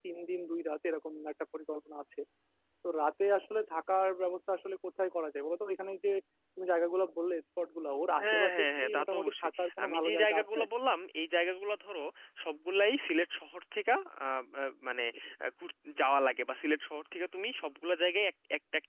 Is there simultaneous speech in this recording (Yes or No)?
Yes